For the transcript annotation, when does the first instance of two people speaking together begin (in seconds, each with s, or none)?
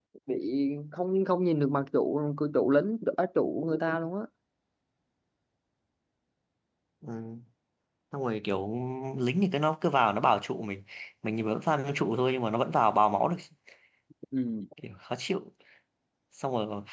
none